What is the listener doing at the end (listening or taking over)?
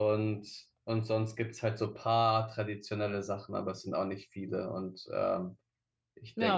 taking over